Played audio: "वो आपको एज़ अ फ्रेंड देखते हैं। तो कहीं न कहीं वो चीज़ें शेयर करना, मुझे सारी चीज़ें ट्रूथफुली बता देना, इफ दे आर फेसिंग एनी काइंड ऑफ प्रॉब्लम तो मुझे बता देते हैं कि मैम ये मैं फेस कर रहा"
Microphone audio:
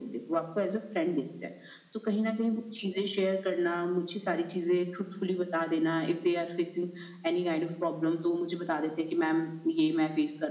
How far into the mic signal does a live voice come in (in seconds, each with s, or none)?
none